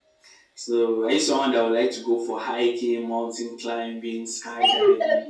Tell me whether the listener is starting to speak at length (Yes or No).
Yes